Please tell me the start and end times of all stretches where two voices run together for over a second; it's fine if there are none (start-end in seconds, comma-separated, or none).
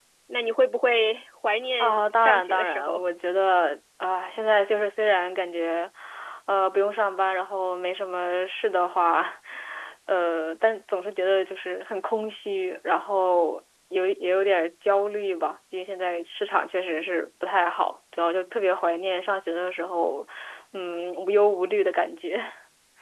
1.8-3.0